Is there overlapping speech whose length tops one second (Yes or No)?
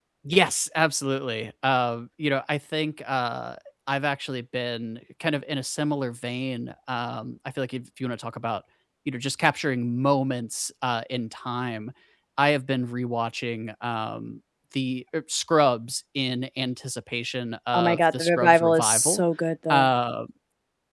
Yes